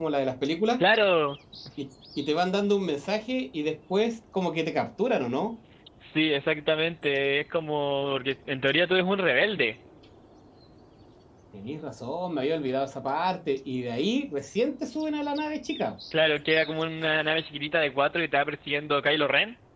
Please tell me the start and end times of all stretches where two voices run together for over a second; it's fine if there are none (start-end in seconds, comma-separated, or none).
none